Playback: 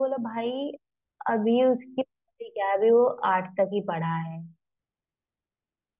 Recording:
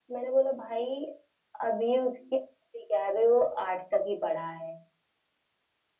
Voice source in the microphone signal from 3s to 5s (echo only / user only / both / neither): echo only